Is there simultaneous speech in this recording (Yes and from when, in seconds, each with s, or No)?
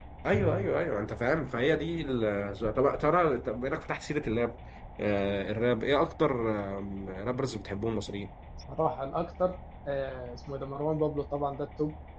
No